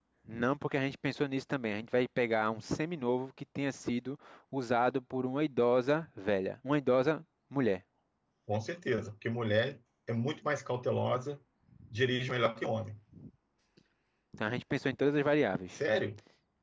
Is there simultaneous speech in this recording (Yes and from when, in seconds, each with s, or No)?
No